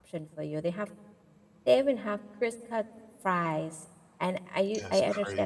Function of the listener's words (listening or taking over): listening